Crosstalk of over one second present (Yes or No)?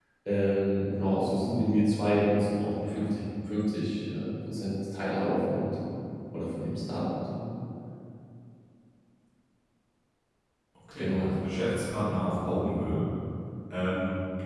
No